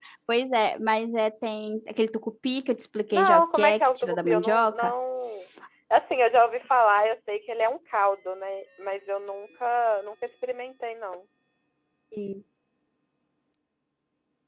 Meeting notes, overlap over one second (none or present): present